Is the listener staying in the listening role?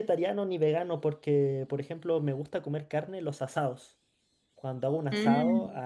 Yes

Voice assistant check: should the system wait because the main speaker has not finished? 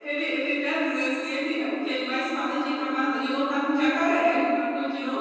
No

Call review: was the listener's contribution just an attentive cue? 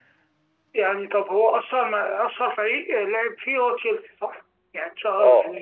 No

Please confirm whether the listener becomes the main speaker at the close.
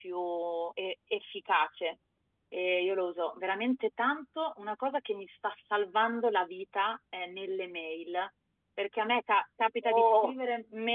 No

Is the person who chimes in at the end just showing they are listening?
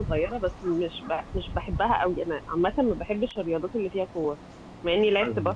Yes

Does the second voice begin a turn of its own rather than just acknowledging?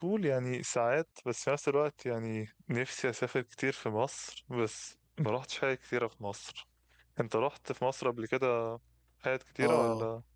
Yes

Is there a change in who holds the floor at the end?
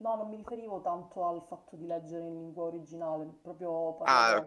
No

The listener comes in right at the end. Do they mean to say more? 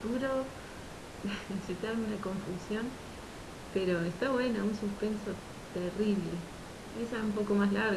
No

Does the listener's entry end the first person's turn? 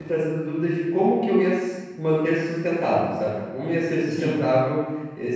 No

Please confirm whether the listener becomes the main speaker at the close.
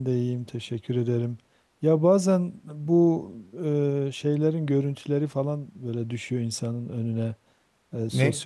No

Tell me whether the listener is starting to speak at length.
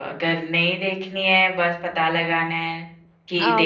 No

